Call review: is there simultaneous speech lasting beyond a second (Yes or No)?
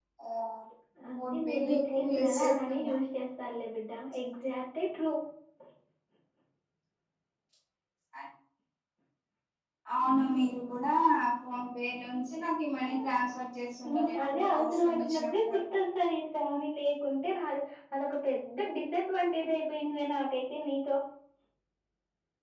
Yes